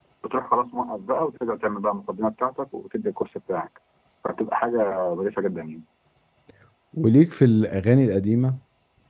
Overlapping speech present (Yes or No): No